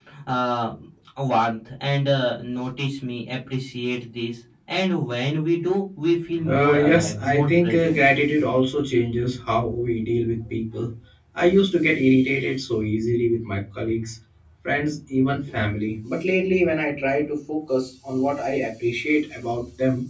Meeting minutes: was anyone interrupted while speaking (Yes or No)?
Yes